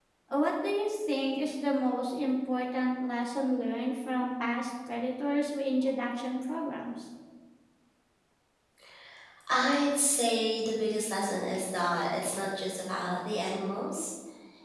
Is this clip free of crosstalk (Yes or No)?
Yes